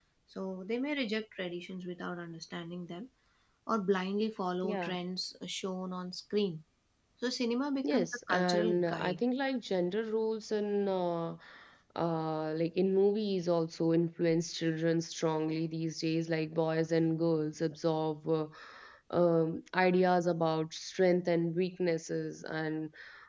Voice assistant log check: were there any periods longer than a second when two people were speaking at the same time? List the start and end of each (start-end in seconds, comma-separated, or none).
7.9-9.2